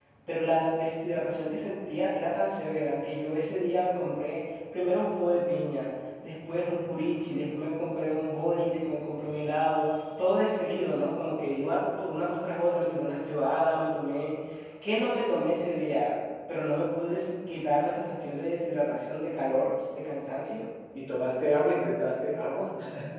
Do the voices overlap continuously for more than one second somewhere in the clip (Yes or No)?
No